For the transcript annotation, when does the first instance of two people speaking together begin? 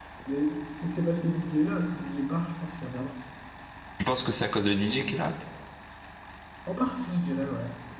none

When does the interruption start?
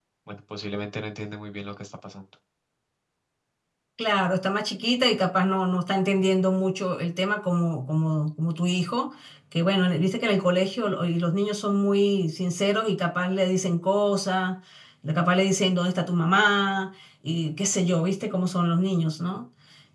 none

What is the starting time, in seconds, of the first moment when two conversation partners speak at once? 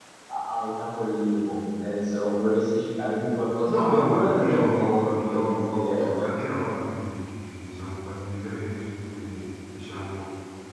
3.7 s

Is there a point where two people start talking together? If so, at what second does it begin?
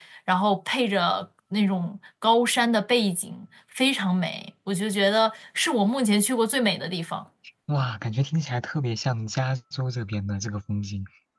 none

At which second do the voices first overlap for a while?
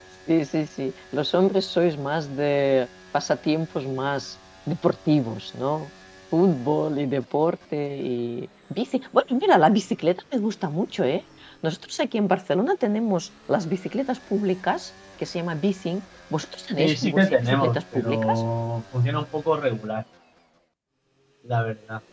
16.8 s

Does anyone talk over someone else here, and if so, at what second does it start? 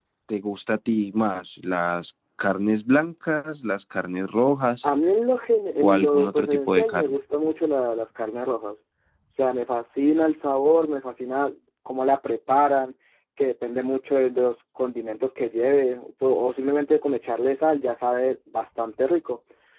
5.8 s

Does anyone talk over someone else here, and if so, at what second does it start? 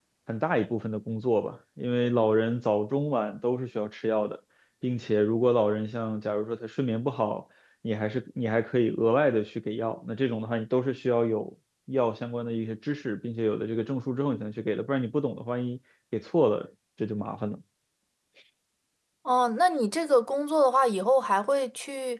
none

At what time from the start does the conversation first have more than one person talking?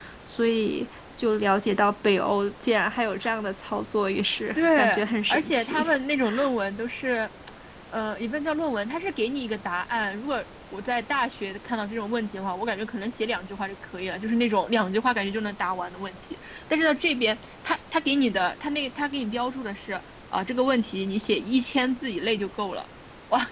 4.5 s

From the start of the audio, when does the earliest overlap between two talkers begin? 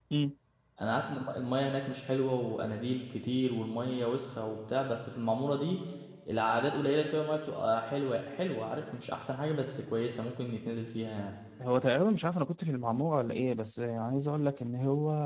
none

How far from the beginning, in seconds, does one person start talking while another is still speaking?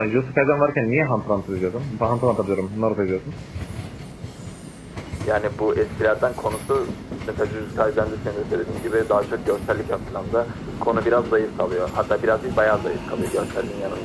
none

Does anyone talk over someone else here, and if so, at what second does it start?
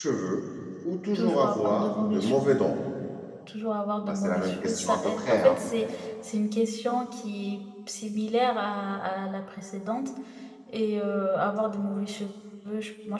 1.1 s

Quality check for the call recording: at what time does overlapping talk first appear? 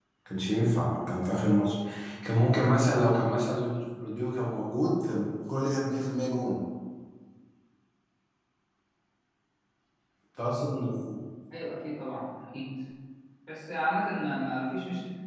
none

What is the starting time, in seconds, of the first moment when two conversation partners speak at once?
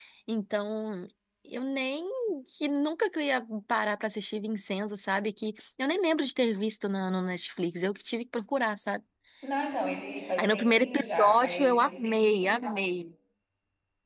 10.4 s

